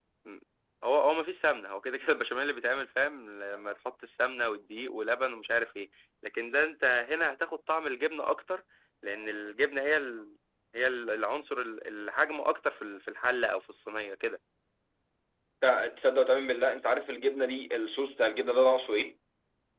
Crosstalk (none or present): none